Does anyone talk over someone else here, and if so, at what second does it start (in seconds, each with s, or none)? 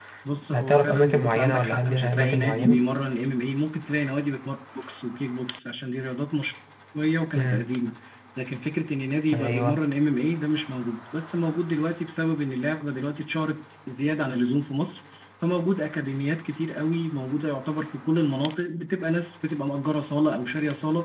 0.5 s